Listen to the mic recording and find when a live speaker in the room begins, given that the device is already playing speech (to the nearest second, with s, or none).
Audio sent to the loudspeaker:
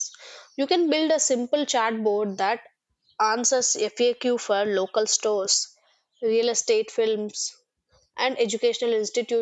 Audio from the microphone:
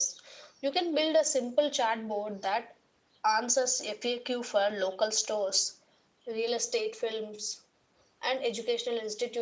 none